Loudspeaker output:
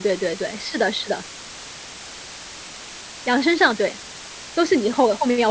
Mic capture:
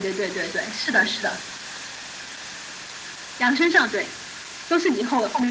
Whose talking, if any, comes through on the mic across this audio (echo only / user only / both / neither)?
echo only